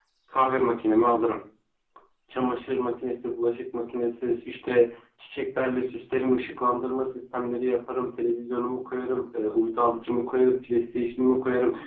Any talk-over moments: No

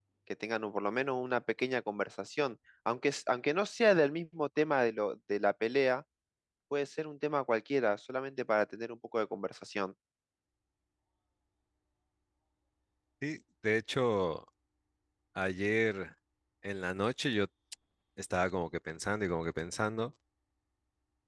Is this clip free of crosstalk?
Yes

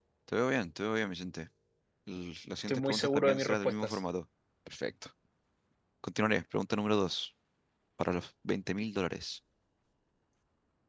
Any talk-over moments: Yes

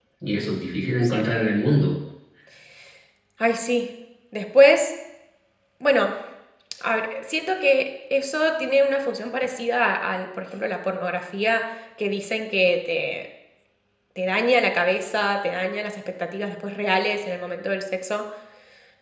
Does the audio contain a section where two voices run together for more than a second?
No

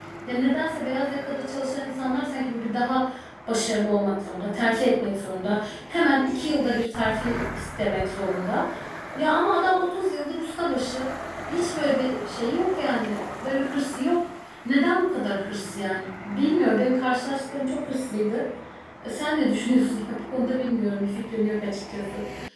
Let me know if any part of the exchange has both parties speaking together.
No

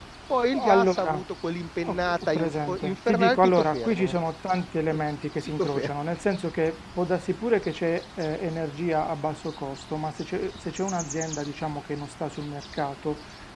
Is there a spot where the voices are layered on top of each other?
Yes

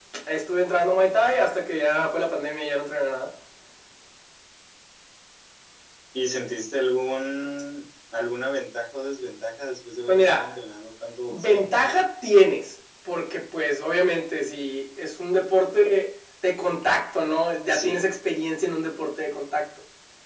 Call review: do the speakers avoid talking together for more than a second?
Yes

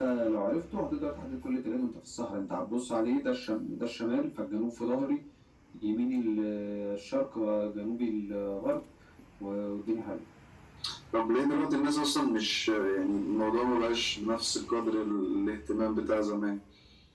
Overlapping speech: No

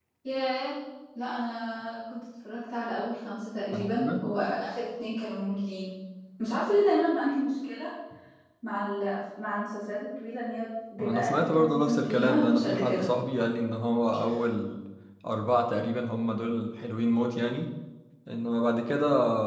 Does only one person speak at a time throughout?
No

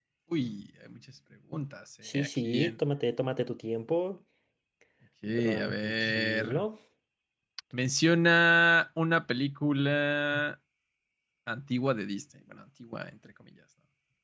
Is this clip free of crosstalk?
No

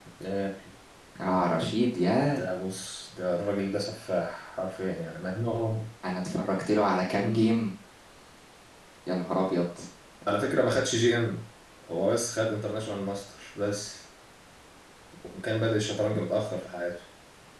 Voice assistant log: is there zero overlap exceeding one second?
Yes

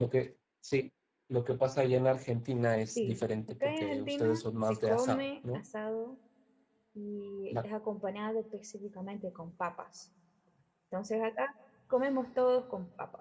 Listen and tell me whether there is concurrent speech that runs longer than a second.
Yes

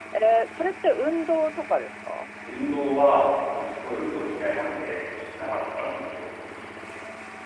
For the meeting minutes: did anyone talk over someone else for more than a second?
No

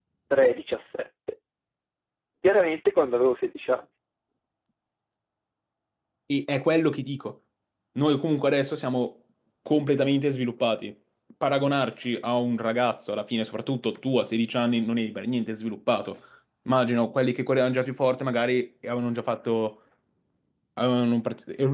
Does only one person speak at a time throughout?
Yes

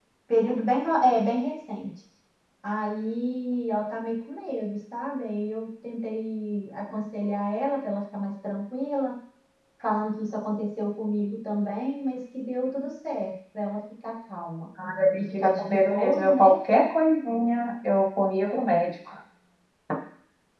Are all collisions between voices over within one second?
No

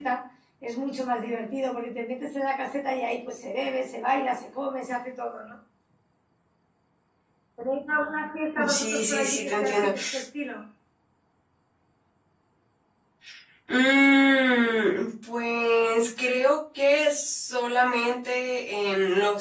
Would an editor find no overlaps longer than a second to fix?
No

